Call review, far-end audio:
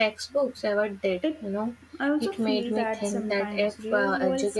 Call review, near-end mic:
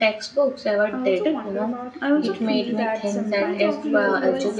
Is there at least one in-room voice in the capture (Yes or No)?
Yes